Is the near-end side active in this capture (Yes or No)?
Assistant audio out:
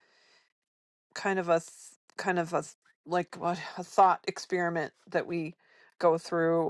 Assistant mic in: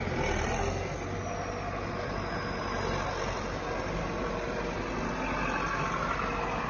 No